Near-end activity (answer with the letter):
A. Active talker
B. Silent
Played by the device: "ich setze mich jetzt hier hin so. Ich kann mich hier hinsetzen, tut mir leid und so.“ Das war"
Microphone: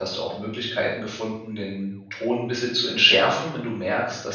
A